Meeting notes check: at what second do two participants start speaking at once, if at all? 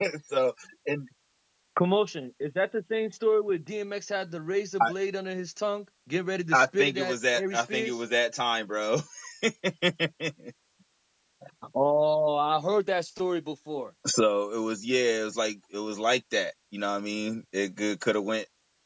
6.5 s

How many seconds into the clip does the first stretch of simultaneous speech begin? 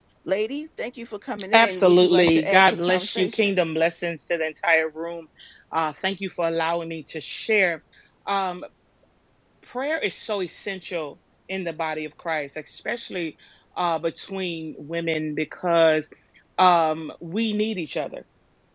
1.5 s

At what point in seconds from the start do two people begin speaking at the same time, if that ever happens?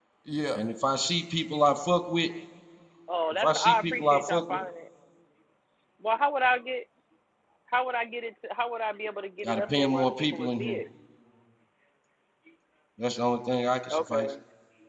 3.4 s

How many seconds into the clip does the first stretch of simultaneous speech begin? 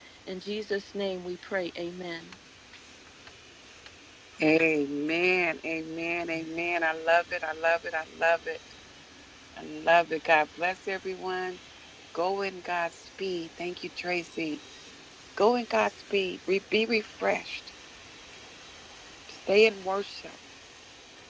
none

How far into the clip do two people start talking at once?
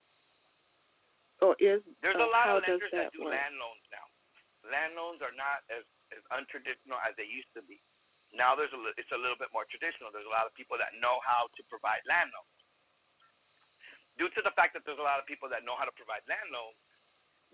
2.1 s

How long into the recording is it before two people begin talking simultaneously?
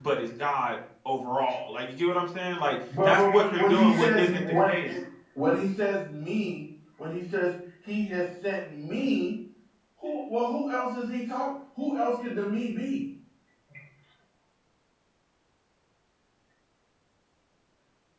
2.9 s

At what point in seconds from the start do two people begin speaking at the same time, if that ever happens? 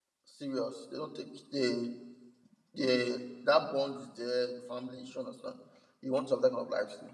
none

